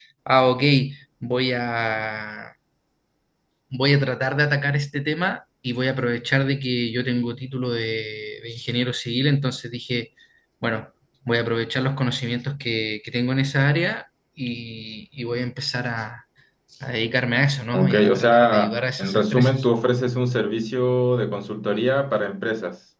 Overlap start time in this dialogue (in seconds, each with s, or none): 17.7 s